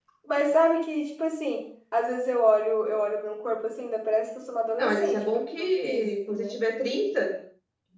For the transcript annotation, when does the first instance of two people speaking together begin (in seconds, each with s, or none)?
4.8 s